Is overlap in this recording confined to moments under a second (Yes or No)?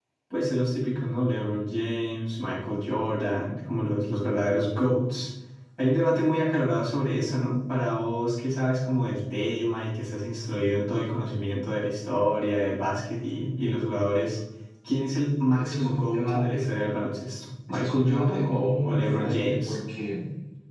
No